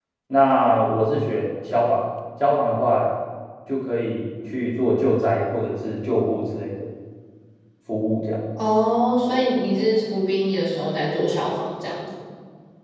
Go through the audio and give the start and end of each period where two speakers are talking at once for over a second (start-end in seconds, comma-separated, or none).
none